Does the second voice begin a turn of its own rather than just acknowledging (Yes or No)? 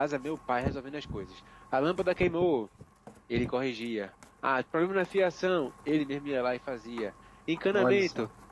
No